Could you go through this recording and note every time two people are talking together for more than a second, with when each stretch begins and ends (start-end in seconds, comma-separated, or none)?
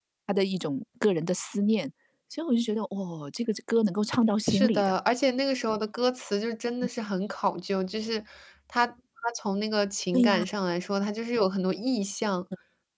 none